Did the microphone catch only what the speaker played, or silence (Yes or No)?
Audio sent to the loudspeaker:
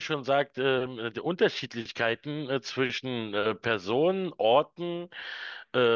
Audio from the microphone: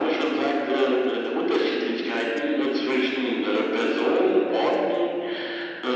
Yes